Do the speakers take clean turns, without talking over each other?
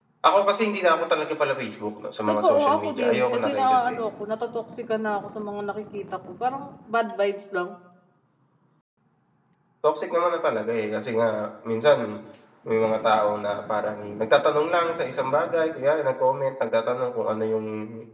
No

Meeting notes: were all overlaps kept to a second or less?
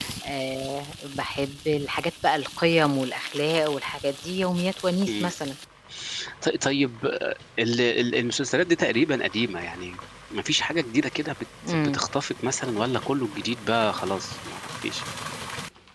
Yes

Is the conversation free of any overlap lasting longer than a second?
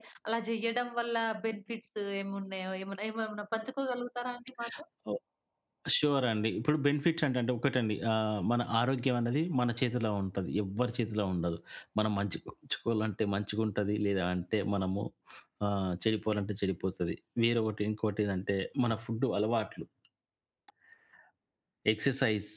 Yes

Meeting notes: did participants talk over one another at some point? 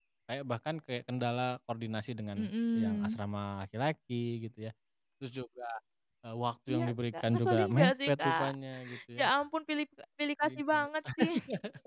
Yes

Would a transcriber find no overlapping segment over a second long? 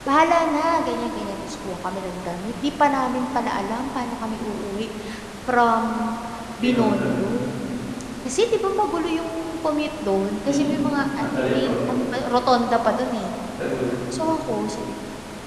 No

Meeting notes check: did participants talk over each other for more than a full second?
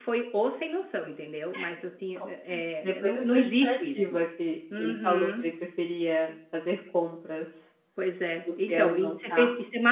Yes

